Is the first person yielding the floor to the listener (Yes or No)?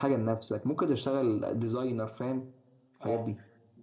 Yes